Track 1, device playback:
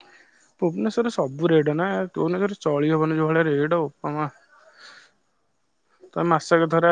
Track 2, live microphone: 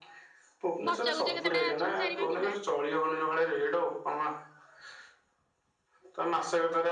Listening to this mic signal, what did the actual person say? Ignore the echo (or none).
ବଚା କୁଚା କେତେଟା ଅଛନ୍ତି ଚାରି ପାଞ୍ଚୁଟା